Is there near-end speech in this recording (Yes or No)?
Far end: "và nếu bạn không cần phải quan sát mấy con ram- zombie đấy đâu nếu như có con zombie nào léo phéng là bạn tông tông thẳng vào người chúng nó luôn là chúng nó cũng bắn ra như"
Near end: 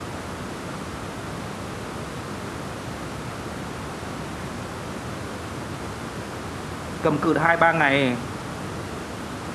Yes